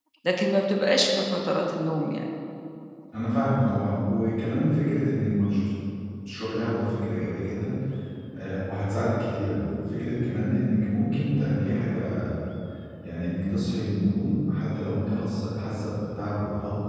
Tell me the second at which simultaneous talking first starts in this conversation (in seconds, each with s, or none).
none